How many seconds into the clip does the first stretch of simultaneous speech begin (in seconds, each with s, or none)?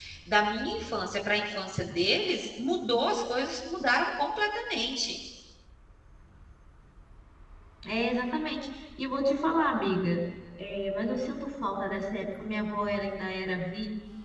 none